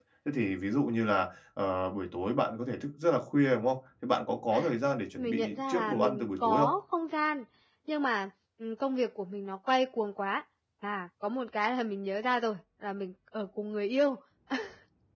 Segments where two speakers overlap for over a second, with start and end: 5.2-6.7

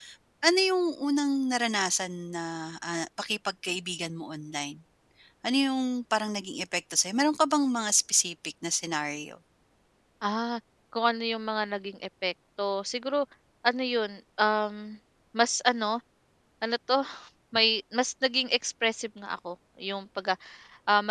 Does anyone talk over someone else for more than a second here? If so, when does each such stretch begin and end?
none

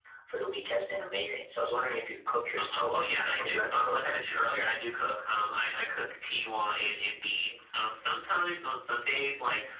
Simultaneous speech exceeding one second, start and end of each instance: 2.6-4.2

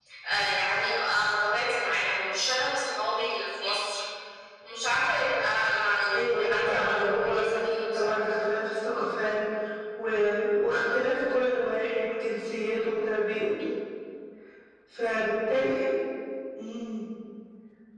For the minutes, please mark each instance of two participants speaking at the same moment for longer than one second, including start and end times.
6.2-7.5

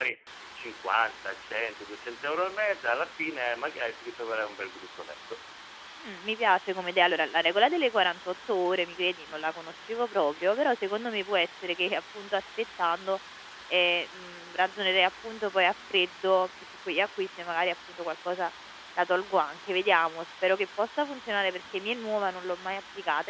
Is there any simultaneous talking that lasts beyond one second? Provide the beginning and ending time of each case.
none

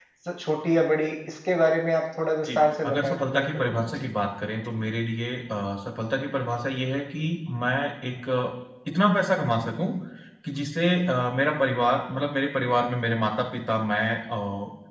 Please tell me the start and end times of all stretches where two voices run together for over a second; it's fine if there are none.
2.5-4.1

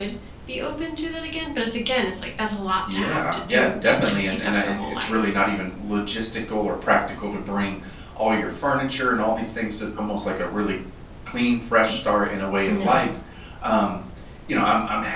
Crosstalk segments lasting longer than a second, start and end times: 2.9-5.2

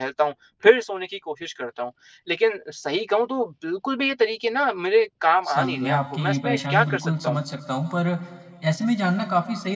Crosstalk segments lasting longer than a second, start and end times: 5.5-7.4

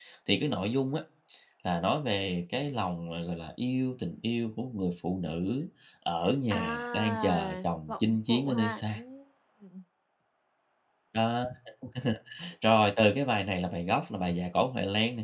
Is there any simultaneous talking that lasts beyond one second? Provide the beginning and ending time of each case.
6.5-9.0

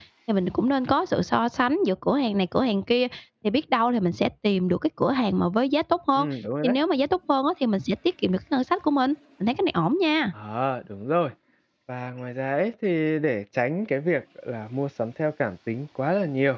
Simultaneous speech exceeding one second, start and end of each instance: none

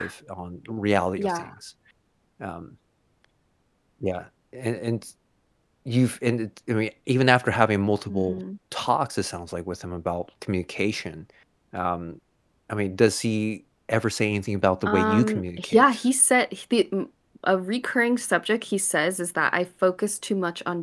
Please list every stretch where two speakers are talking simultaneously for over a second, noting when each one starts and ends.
14.8-16.1

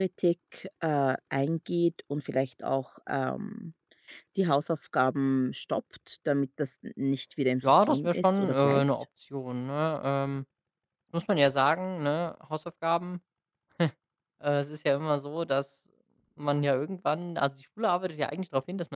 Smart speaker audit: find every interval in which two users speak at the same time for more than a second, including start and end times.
7.6-8.8

